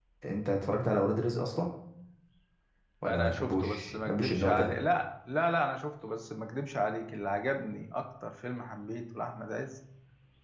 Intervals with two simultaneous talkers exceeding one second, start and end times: 3.1-4.7

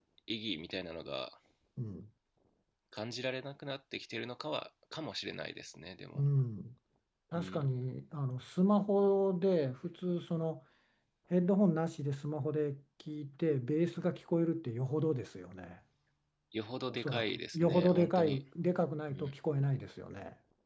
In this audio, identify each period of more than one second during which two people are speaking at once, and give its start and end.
16.9-18.4

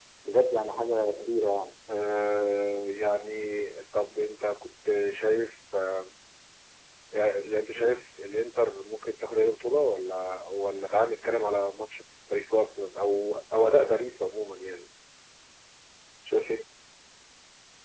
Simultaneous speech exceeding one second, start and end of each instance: none

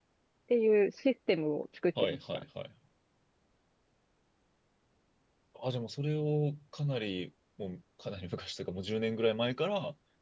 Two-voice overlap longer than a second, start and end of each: none

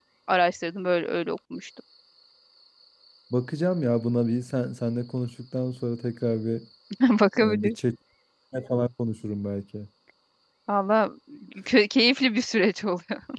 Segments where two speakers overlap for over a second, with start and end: none

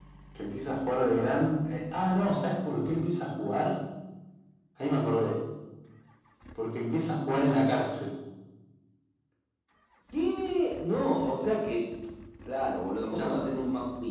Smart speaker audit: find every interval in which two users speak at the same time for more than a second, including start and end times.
none

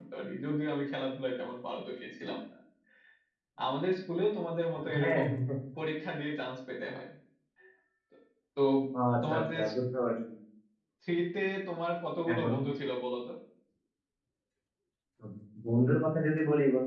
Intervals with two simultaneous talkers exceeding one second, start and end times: none

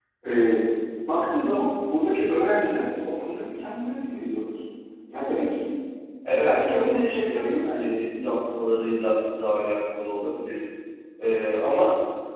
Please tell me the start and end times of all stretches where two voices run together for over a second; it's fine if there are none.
6.3-7.9

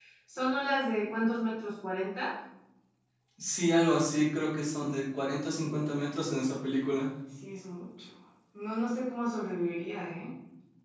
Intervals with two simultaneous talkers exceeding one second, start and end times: none

